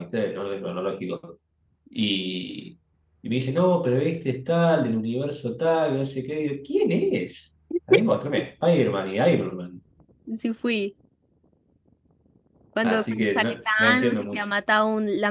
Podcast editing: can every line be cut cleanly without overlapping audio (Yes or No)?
No